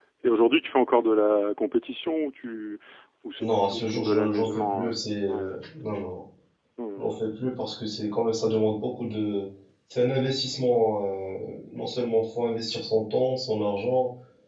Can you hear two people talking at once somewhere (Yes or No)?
Yes